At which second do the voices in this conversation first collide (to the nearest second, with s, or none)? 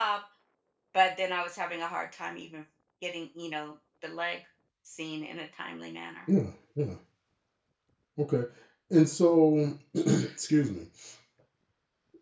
none